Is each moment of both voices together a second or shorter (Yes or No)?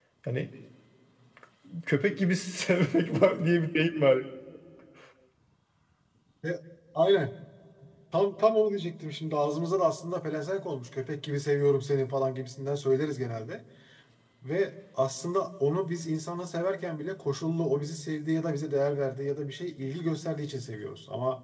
Yes